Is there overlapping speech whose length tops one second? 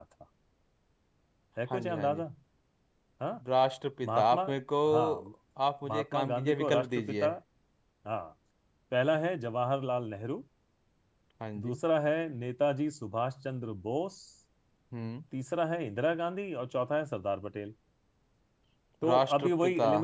Yes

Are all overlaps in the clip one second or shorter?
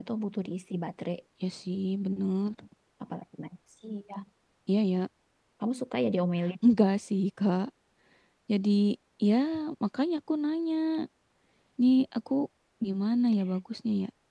Yes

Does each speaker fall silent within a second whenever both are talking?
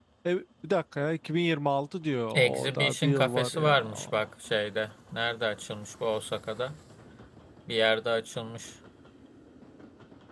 No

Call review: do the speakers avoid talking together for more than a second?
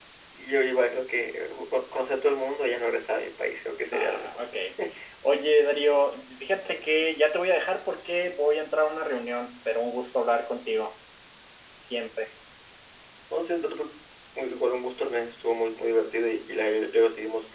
Yes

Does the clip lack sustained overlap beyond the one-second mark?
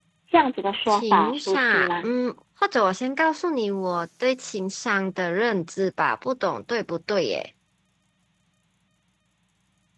No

